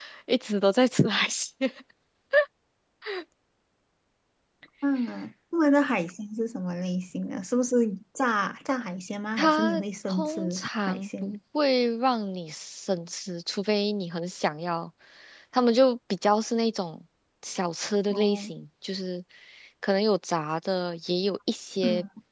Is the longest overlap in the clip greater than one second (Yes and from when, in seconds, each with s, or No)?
Yes, from 9.4 s